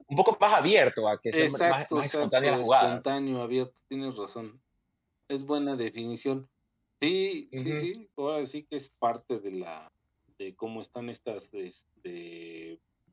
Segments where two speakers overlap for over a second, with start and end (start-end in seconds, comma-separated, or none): 1.3-3.0